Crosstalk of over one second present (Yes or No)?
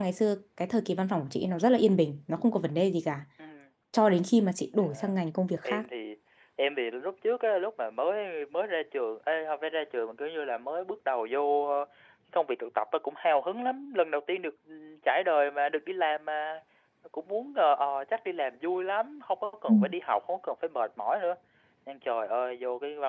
No